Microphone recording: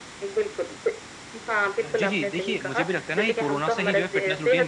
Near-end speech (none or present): present